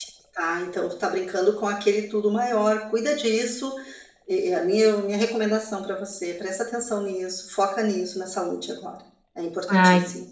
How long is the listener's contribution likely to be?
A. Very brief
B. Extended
B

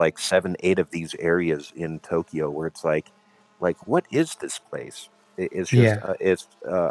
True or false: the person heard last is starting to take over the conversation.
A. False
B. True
A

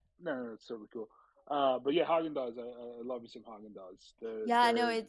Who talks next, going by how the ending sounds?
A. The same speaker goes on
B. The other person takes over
B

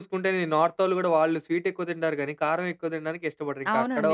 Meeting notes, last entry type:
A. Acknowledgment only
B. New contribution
B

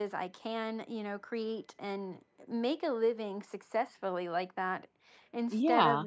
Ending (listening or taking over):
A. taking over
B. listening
B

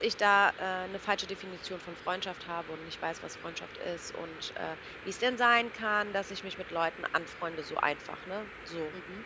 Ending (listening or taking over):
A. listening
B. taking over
A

